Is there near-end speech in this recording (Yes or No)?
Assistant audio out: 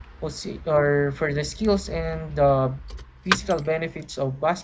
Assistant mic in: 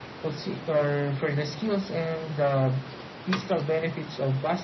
No